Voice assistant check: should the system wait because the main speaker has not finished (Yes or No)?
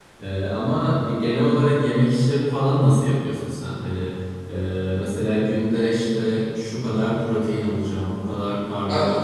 Yes